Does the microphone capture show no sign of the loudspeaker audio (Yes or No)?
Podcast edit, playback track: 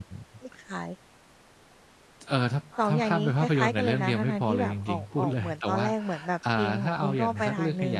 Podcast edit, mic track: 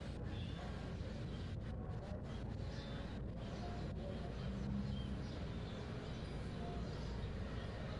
Yes